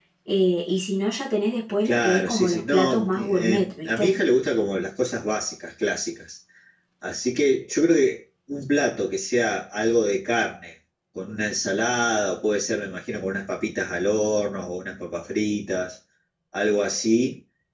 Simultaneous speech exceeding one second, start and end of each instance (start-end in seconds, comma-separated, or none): 1.9-4.2